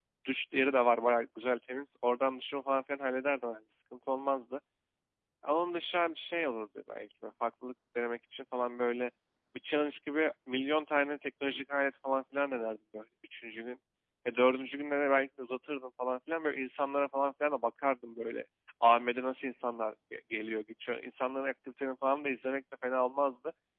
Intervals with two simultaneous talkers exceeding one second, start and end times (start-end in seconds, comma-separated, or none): none